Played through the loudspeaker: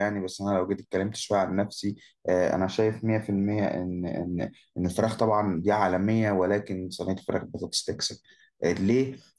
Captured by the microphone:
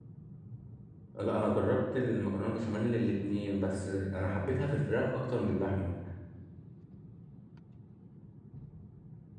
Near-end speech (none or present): present